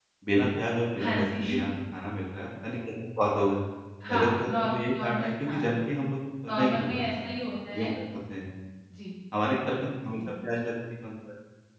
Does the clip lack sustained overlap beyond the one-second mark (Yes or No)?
No